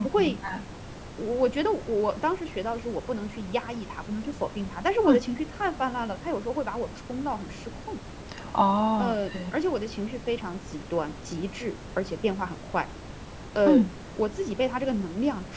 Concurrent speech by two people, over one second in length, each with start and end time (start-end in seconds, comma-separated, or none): none